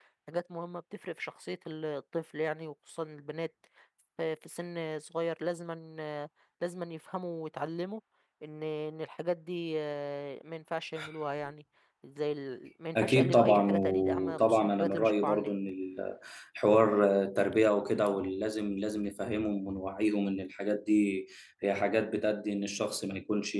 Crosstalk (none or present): present